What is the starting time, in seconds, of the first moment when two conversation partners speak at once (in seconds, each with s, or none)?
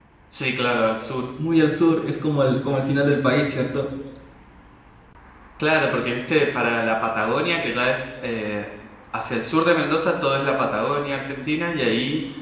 none